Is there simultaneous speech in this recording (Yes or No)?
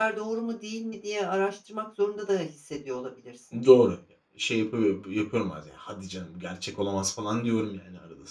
No